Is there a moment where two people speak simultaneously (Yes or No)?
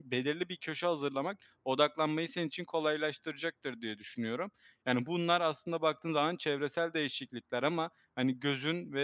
No